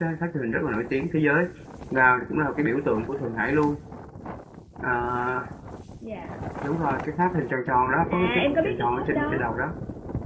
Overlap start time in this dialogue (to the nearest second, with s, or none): 8 s